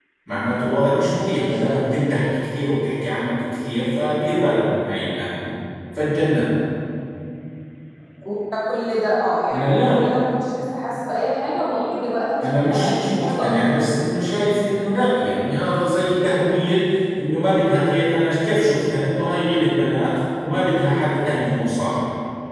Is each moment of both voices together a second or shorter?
No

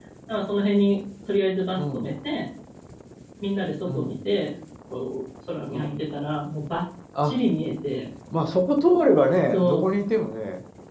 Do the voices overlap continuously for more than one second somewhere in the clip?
No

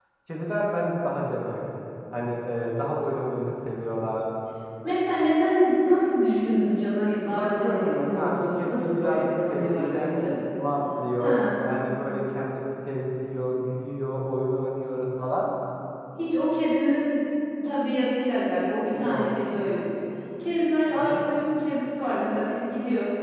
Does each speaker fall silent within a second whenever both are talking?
No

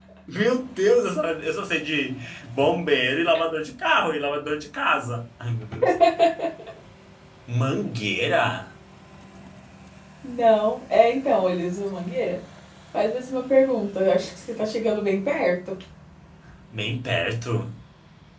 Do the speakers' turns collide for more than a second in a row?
No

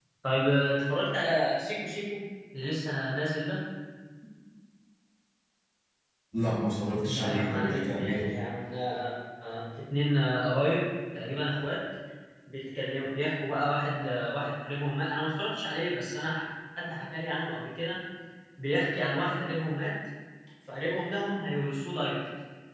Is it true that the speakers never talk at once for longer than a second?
No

